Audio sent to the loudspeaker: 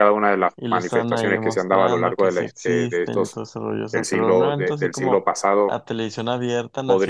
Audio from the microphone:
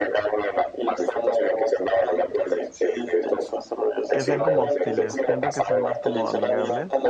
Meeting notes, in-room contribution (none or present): present